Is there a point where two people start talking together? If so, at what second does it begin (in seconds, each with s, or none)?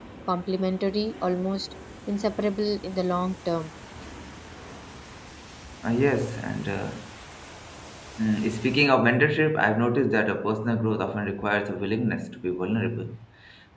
none